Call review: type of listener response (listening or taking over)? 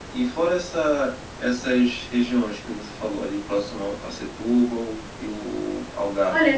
taking over